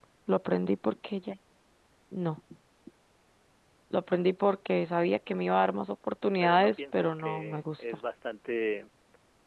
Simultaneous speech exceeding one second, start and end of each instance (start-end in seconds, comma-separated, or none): 6.4-7.8